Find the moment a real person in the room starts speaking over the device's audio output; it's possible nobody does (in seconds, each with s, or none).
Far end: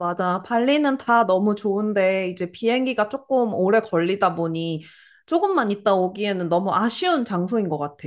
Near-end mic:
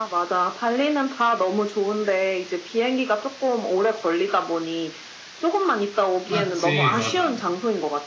6.3 s